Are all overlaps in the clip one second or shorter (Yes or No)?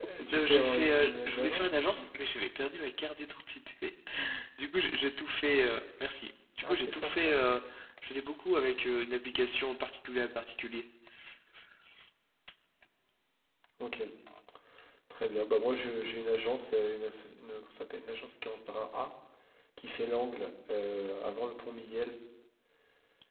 No